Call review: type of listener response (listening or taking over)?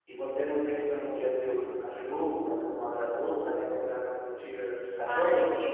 taking over